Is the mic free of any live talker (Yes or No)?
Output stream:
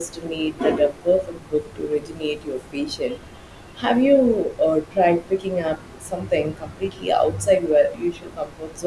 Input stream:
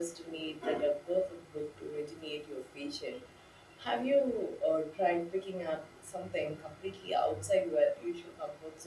Yes